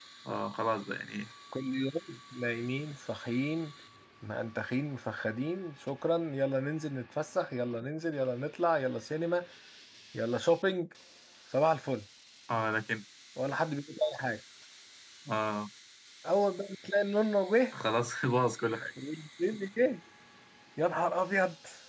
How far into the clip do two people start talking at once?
none

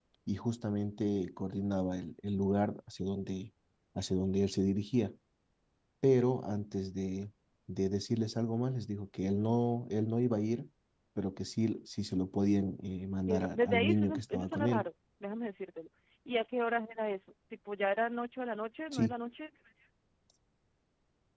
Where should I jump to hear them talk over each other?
13 s

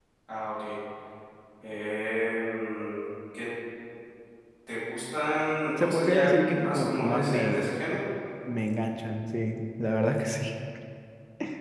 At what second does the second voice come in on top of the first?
6 s

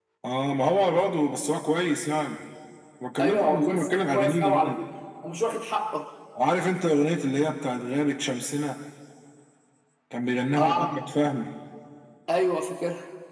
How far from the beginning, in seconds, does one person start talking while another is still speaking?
3 s

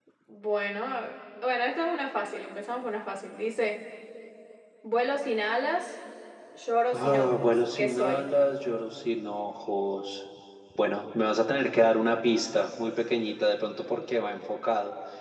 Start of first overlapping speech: 7 s

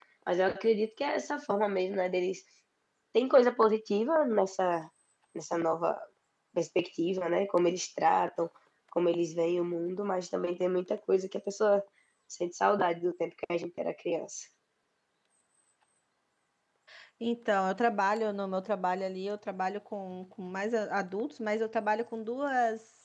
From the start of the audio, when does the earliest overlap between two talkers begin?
none

